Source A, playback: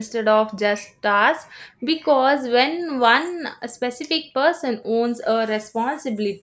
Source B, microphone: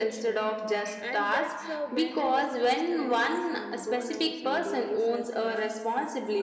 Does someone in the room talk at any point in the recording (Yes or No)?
Yes